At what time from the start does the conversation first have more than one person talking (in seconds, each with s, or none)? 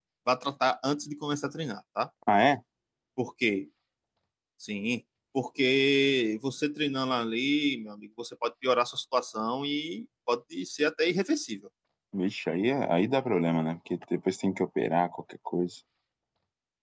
none